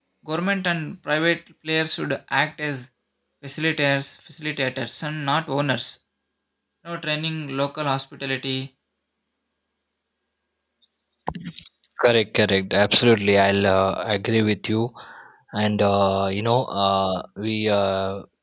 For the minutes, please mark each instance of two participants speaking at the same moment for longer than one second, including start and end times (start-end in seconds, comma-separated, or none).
none